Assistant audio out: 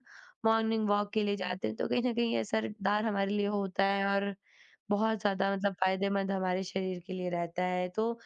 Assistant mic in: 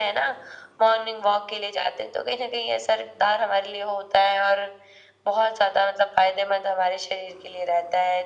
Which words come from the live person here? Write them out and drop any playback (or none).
none